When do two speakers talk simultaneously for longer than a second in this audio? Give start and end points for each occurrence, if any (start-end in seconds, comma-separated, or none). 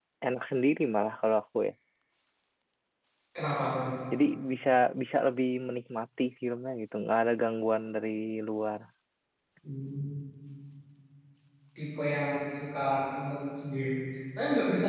none